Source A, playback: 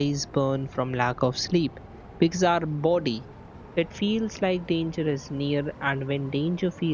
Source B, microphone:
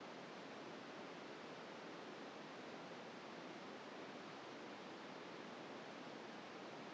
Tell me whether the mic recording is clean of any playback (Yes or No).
Yes